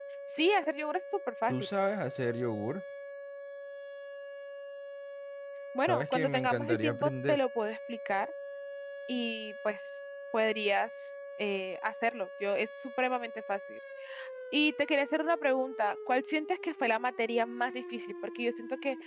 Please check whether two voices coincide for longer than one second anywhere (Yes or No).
Yes